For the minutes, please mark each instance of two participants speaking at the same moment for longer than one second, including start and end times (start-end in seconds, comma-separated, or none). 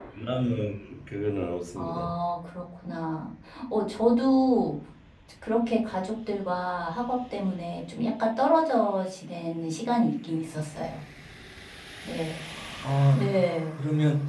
none